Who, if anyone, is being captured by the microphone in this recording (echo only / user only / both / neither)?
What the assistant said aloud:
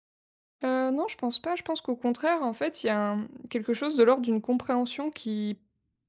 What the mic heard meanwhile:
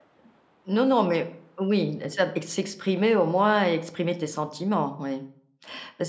user only